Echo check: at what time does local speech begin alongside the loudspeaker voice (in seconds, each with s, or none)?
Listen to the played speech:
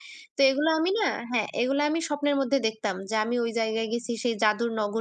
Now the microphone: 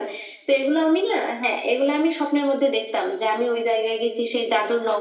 none